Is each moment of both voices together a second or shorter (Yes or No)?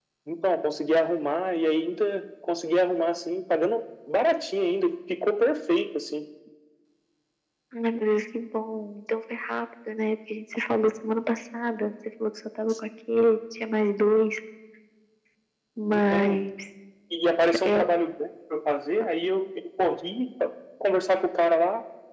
Yes